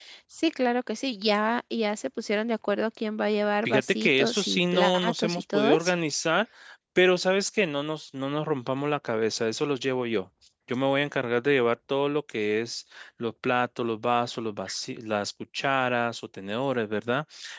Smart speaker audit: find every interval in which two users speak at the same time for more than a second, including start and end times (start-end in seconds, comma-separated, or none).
3.6-5.9